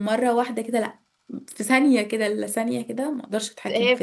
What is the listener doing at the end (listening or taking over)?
taking over